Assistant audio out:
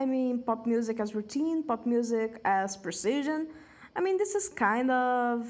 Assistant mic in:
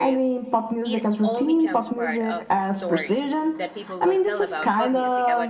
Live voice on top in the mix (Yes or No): No